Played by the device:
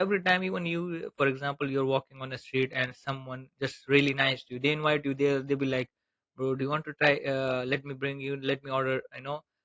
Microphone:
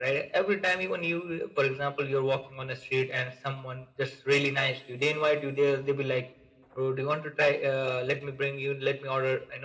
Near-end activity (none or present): none